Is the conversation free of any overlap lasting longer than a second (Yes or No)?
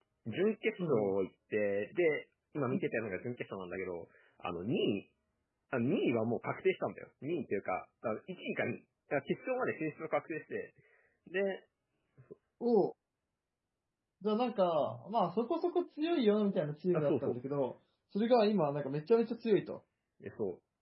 Yes